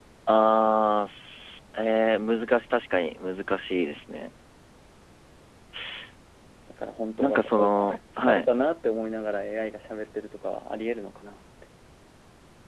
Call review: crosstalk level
present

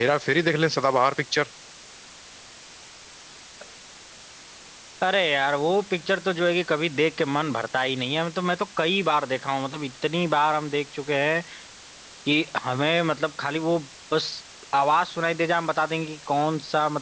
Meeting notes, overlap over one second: none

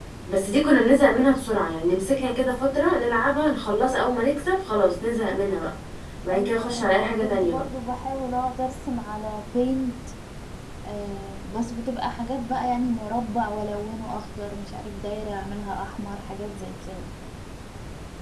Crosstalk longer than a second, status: present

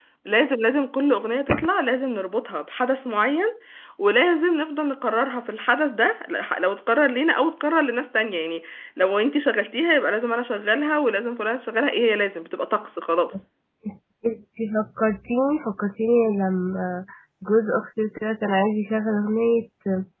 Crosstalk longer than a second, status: none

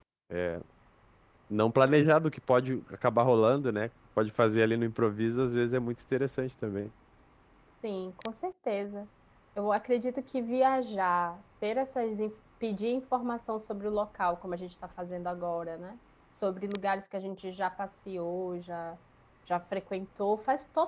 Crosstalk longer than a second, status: none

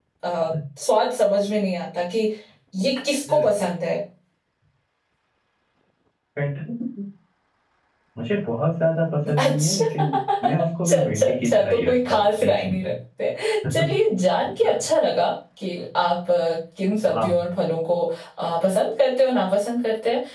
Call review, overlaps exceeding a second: present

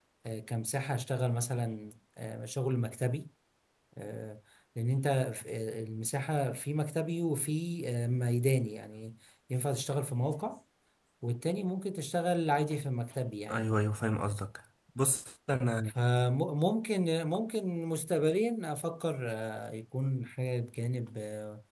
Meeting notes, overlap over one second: none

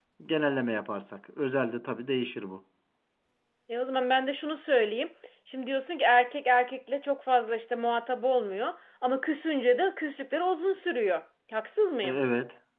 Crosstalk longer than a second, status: none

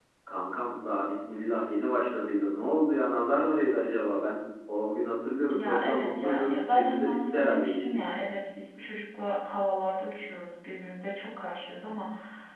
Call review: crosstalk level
present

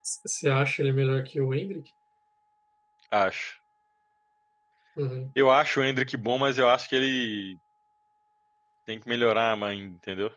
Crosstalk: none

